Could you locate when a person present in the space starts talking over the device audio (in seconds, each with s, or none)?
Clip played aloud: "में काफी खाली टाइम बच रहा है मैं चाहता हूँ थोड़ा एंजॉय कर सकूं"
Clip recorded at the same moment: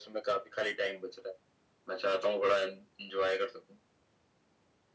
none